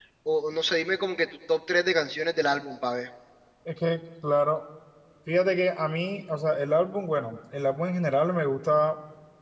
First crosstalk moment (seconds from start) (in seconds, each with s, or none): none